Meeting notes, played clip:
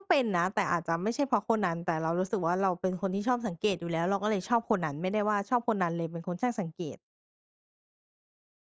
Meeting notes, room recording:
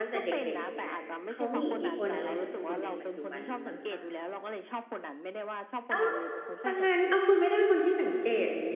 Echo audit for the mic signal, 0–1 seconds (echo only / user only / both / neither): both